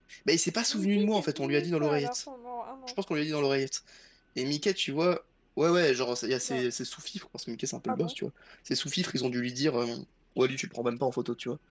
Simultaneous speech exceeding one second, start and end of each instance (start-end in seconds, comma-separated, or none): 0.7-2.1